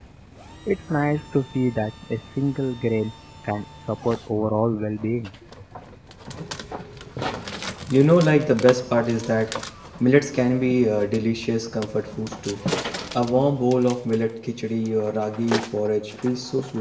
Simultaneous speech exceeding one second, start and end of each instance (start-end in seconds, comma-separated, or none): none